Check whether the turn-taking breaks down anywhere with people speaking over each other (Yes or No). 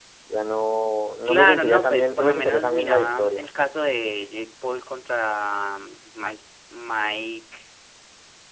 Yes